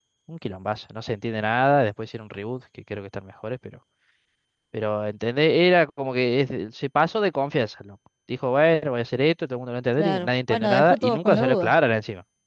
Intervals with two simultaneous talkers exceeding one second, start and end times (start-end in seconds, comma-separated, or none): 10.0-11.7